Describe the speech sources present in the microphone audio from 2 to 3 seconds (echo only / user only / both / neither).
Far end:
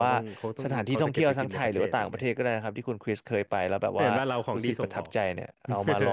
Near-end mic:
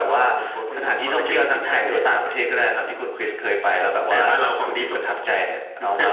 echo only